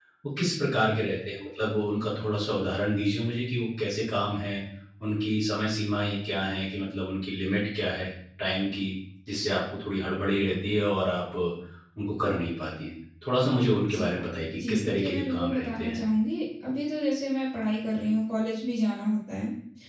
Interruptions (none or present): present